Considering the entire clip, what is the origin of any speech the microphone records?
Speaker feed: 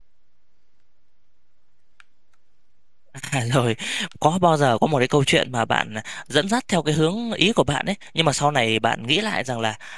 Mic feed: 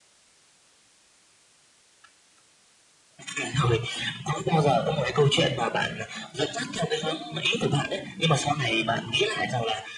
echo only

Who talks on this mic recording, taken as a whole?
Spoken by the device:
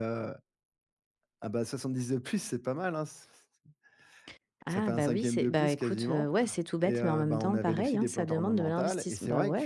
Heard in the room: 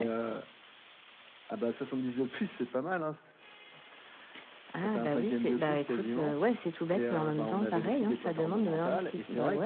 echo only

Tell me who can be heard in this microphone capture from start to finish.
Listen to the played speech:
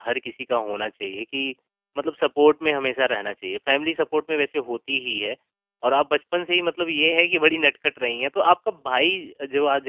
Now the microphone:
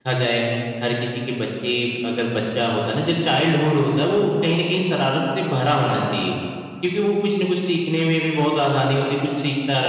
user only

